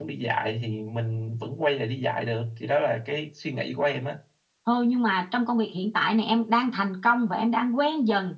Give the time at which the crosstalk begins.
none

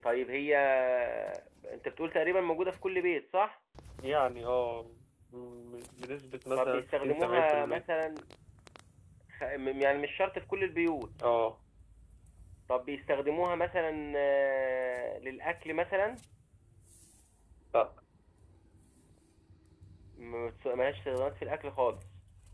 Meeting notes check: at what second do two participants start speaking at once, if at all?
6.6 s

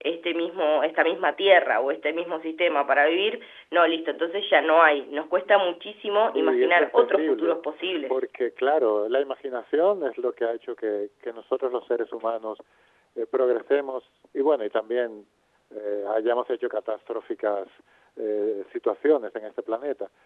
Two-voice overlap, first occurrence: 6.3 s

